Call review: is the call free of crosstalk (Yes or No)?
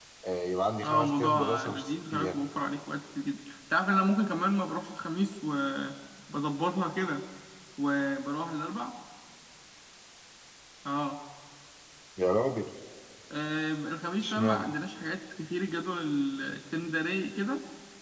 No